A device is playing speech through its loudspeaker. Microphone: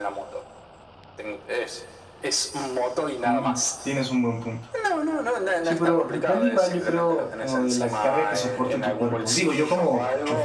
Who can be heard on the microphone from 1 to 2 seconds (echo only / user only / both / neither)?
echo only